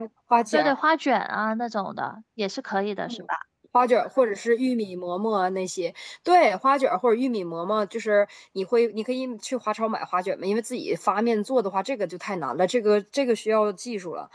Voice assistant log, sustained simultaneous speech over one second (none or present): none